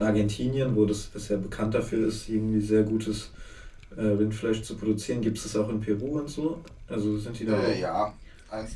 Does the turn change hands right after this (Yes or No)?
Yes